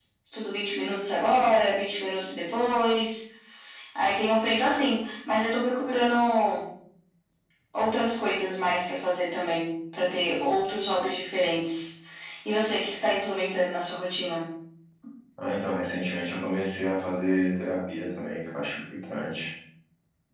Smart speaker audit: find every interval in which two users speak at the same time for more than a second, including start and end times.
none

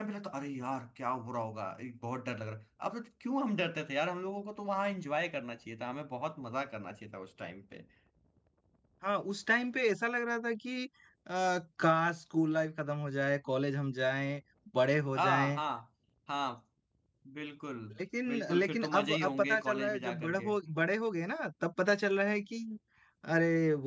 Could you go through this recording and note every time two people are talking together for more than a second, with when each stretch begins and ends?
18.3-20.5

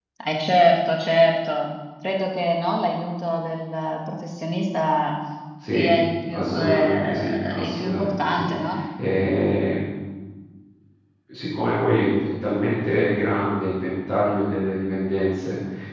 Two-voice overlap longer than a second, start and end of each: 6.3-8.5

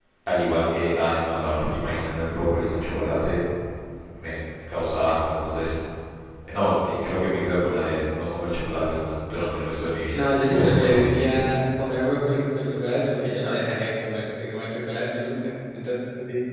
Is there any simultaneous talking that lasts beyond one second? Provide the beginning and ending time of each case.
10.1-11.3

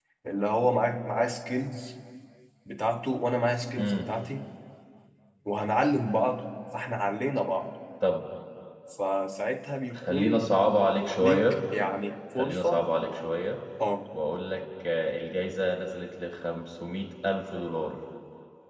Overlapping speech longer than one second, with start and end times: none

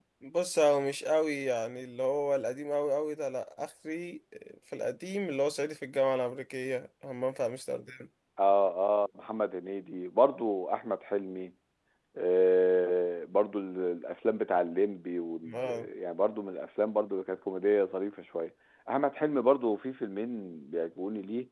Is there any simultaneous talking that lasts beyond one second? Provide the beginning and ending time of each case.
none

